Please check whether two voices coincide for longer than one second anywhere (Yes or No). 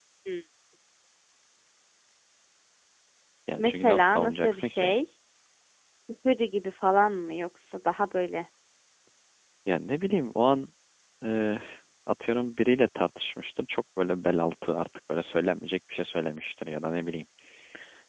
Yes